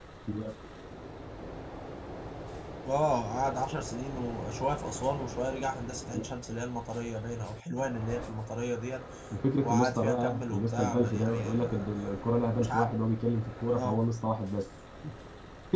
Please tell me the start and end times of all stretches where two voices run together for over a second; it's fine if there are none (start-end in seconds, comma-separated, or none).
9.6-11.8